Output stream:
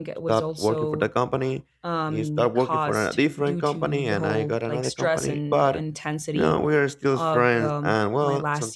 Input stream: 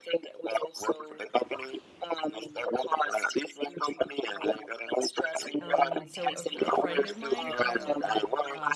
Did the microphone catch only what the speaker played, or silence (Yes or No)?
No